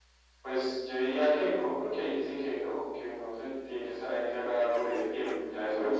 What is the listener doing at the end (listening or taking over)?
listening